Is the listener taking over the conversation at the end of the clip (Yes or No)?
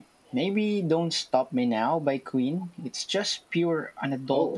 Yes